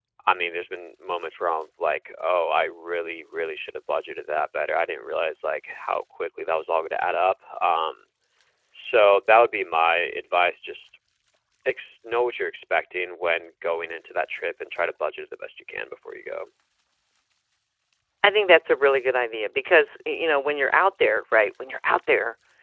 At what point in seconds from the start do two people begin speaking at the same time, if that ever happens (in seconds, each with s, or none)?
none